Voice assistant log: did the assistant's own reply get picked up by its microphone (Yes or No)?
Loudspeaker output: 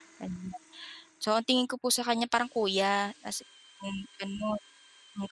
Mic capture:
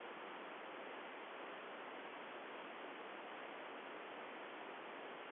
No